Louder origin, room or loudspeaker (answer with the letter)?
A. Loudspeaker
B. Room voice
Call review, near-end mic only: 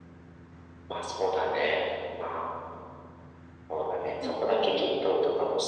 A